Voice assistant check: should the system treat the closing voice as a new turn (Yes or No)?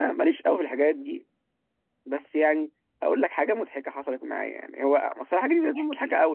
No